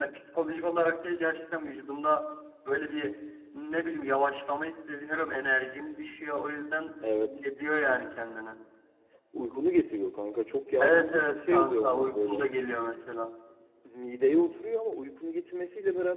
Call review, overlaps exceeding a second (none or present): present